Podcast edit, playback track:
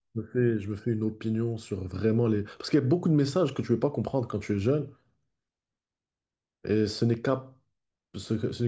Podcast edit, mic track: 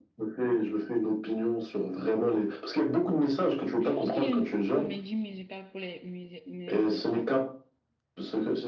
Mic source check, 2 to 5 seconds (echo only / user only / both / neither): both